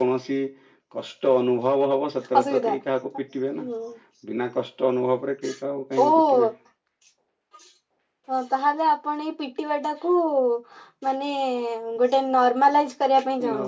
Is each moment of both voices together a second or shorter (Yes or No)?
Yes